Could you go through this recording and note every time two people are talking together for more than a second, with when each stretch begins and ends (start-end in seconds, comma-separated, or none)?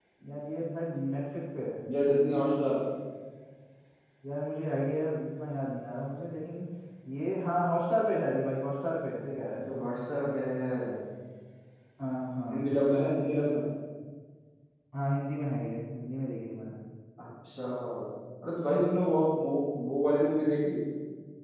none